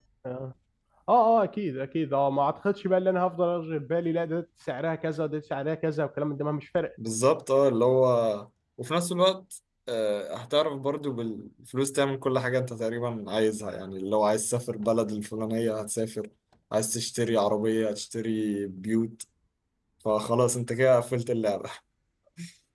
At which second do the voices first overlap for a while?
none

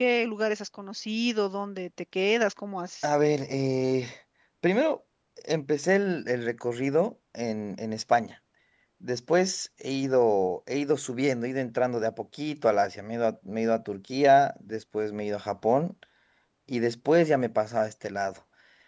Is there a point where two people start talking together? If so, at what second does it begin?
none

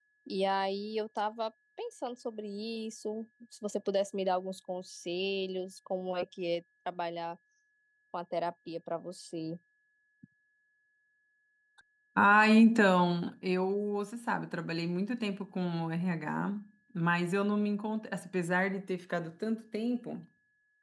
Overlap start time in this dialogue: none

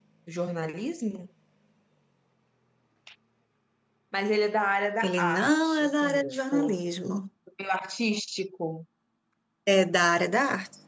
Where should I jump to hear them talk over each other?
5.0 s

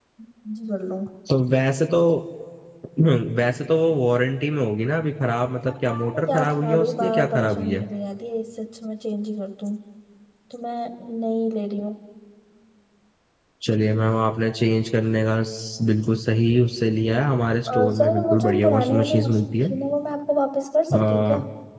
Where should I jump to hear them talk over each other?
5.7 s

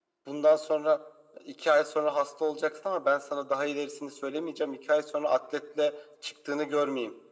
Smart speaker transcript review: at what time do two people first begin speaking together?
none

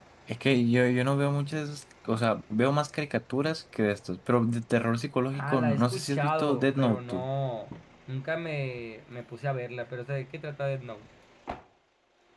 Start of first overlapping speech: 5.3 s

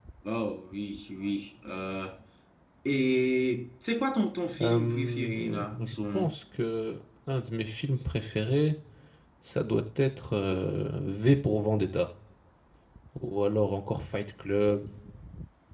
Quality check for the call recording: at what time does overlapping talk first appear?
4.6 s

